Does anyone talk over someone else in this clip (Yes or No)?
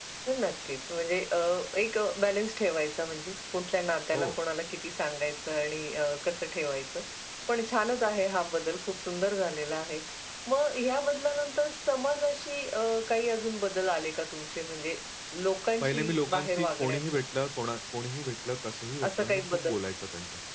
Yes